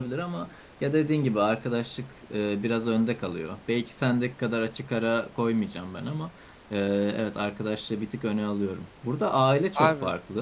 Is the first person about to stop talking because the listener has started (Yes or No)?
No